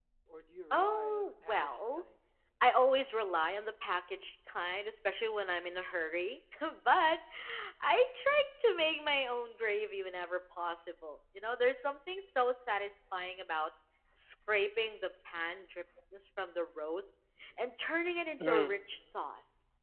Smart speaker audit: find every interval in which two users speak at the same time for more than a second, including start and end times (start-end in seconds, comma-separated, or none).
0.7-2.0